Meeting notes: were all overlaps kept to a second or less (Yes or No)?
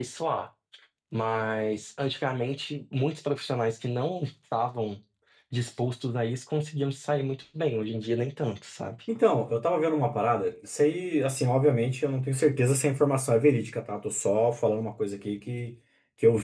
Yes